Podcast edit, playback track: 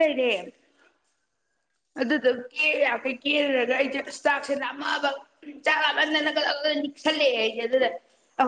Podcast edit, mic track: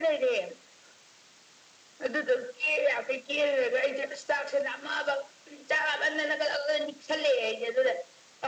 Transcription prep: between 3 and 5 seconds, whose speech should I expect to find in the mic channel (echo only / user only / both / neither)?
echo only